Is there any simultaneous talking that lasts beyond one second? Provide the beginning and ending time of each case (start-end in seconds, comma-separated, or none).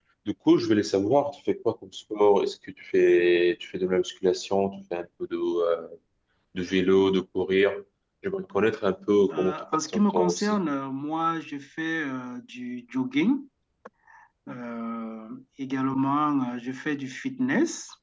9.3-10.6